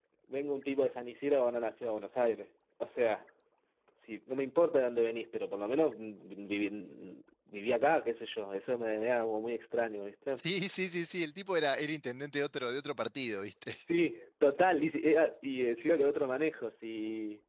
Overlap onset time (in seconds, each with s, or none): none